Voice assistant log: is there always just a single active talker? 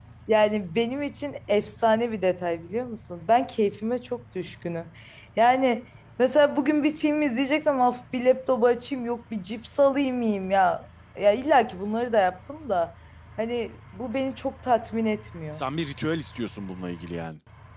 Yes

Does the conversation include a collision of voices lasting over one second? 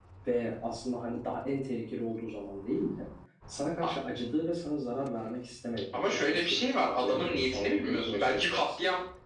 Yes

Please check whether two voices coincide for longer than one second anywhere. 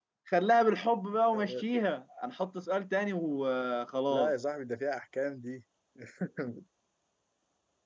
No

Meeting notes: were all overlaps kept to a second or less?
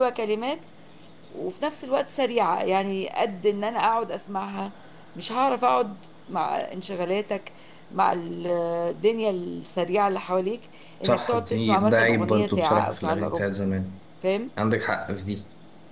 No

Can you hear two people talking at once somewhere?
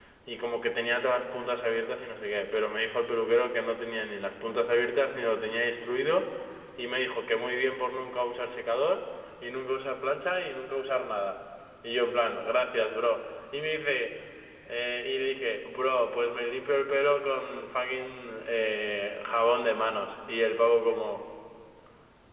No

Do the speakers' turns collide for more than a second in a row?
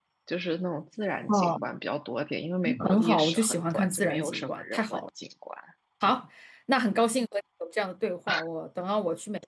Yes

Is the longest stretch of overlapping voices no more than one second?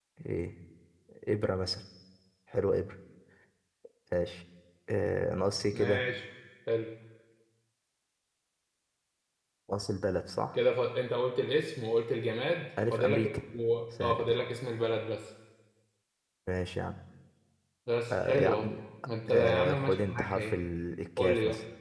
No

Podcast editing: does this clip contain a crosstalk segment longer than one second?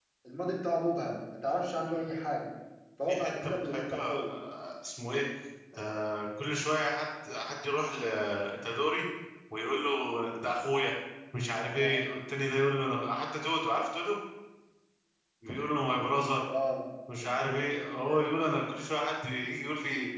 Yes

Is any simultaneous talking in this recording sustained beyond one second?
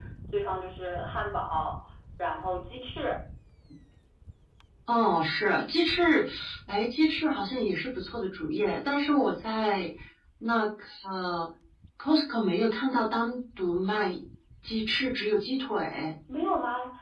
No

